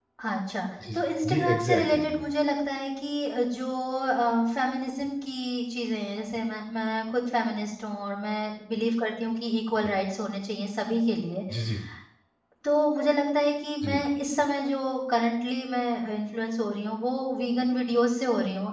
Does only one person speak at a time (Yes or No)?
No